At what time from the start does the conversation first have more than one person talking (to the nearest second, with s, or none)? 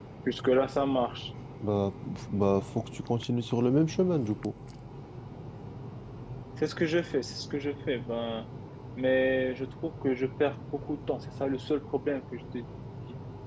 none